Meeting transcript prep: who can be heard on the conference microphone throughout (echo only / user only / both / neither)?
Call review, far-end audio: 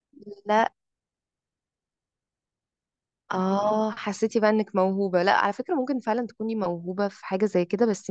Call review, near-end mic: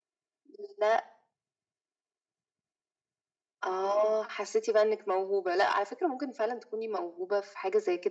echo only